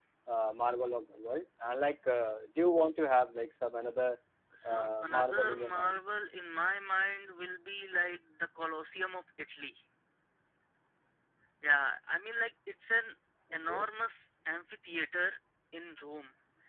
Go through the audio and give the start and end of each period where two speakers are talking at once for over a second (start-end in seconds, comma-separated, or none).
4.7-6.0